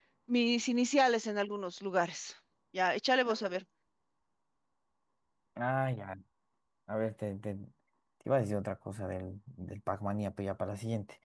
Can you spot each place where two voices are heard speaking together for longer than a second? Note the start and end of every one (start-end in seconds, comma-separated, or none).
none